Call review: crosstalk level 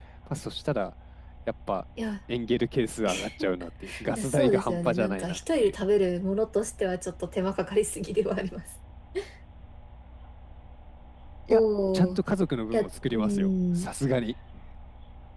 present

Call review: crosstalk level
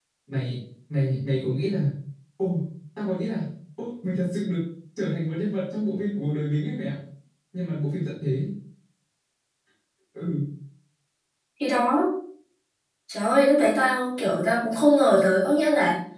none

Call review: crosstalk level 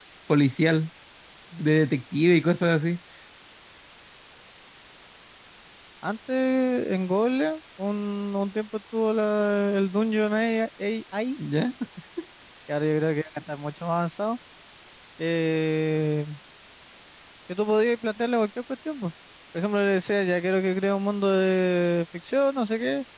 none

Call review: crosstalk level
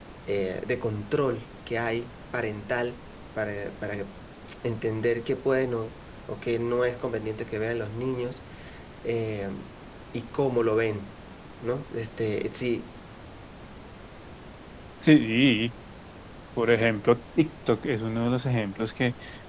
none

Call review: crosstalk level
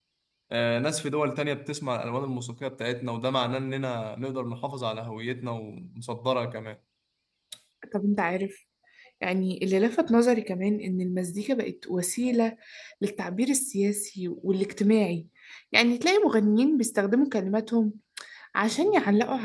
none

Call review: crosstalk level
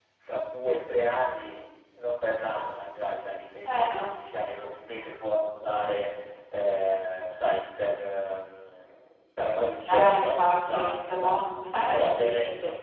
present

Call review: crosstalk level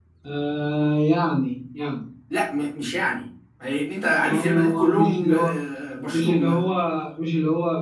present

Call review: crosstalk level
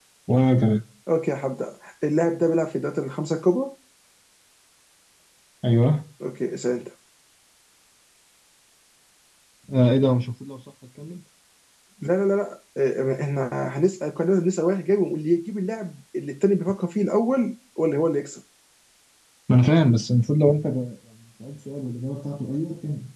none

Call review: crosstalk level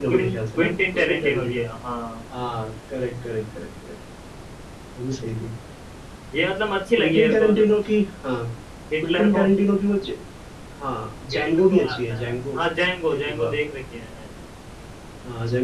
present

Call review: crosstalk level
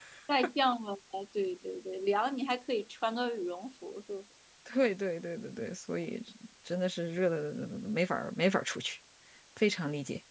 none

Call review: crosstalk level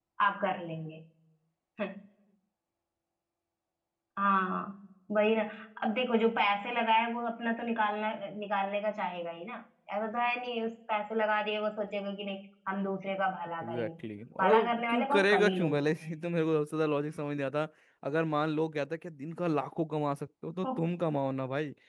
present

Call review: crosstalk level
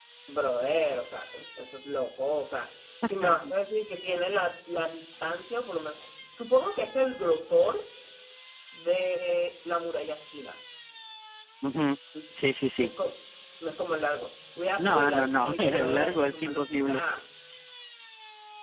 present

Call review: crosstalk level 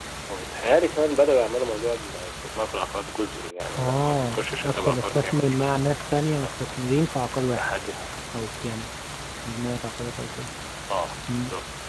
present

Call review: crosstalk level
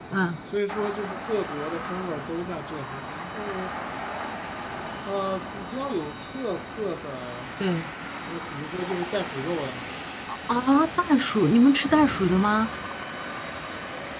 none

